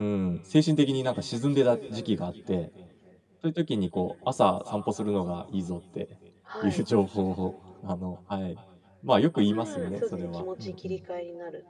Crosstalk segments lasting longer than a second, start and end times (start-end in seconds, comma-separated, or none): 9.5-11.0